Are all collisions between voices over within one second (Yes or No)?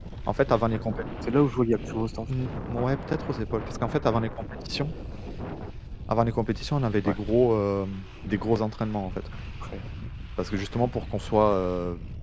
Yes